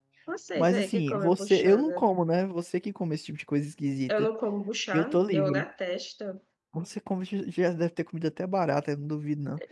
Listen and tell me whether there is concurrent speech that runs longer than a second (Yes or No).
Yes